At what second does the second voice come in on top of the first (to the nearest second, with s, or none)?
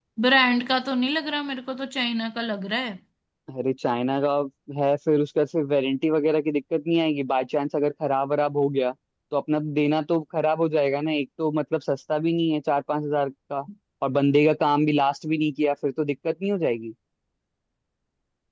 none